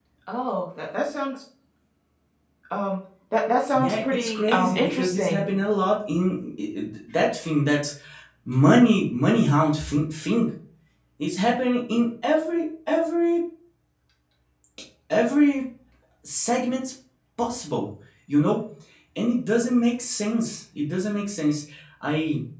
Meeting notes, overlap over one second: present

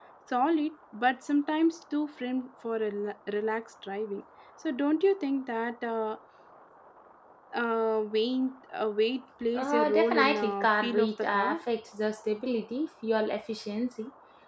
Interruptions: present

